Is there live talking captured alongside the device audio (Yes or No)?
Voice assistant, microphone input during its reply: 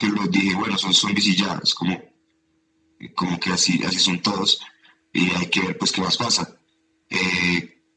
No